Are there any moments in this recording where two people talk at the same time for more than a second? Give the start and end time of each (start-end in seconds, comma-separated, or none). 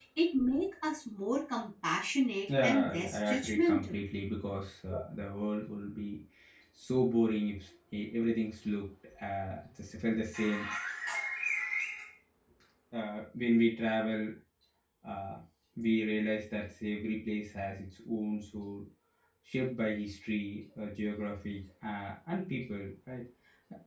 2.6-4.0